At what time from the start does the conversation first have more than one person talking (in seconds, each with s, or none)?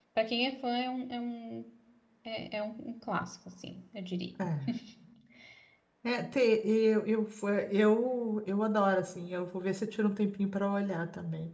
none